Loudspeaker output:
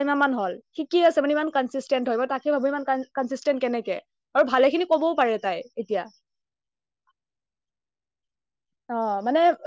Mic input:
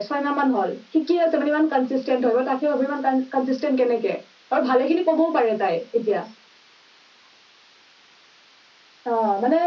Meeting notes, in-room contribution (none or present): none